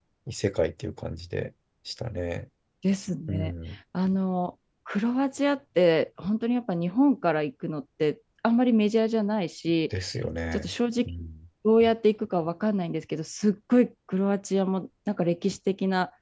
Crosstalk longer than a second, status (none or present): none